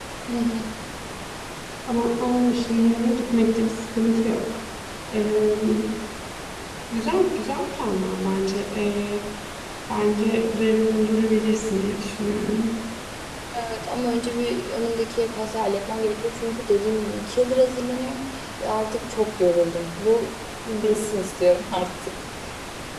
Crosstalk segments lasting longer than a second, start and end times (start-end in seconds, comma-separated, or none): none